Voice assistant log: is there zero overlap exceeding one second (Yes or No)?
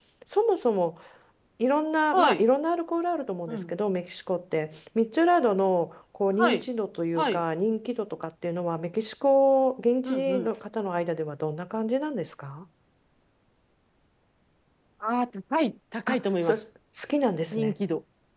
Yes